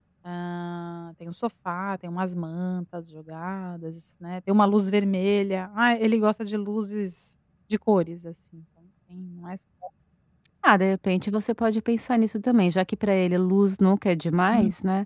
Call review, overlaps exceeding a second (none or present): none